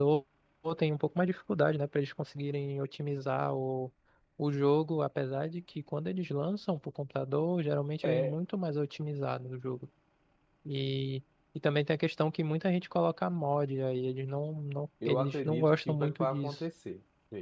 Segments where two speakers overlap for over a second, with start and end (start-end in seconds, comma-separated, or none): 15.0-16.6